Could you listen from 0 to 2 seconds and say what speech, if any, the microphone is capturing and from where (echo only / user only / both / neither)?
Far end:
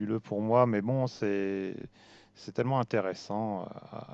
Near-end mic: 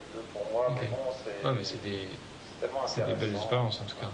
both